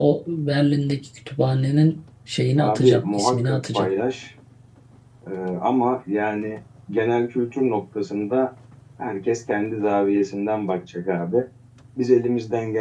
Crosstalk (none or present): present